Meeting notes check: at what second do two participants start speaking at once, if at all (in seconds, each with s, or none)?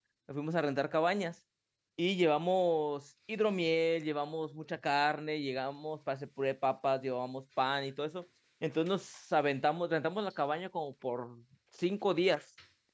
none